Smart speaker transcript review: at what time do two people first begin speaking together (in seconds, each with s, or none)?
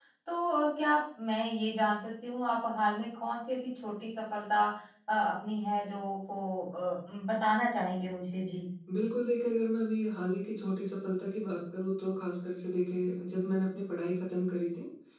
none